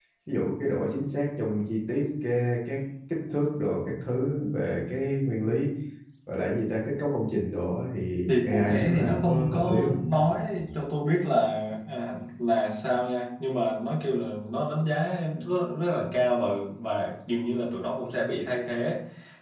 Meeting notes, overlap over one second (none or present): present